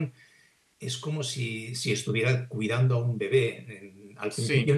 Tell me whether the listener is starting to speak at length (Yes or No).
No